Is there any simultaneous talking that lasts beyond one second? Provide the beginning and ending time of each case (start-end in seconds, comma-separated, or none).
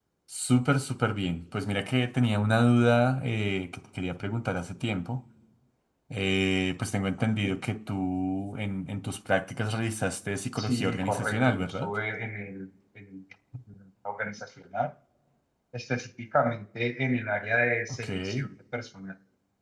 10.6-11.9